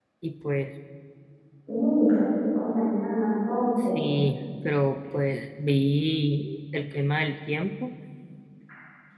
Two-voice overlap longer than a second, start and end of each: none

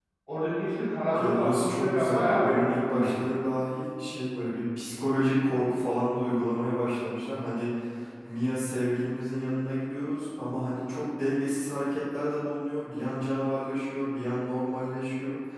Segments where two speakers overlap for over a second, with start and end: 1.2-3.3

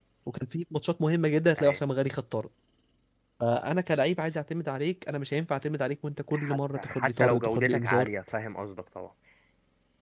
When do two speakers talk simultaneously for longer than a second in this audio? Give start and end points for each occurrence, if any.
6.3-8.1

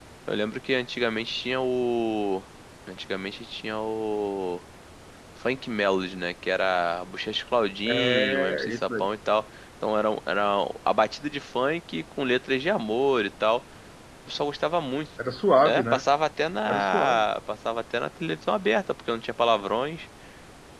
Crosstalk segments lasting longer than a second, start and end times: 7.9-9.1

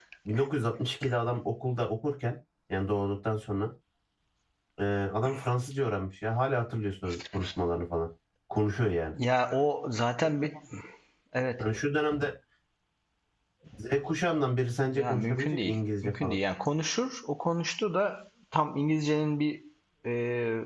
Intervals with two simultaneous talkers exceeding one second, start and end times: 14.9-16.4

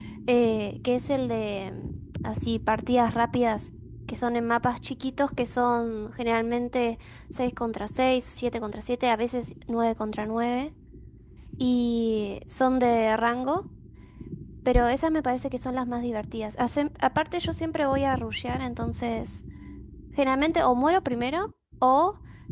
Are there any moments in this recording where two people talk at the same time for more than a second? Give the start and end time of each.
none

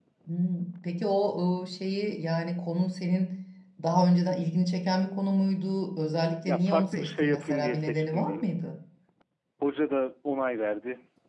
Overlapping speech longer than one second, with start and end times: 6.5-8.5

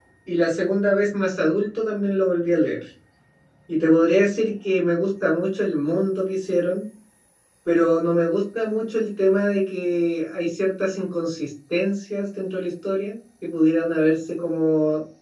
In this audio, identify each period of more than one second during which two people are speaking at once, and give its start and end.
none

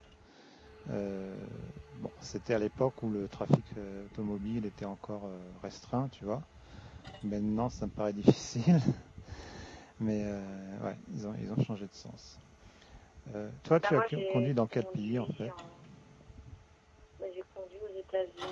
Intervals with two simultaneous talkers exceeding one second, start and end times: 13.8-15.5

